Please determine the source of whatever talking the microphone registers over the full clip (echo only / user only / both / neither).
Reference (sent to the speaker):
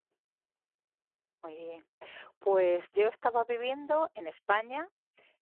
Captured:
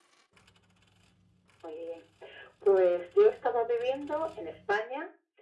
echo only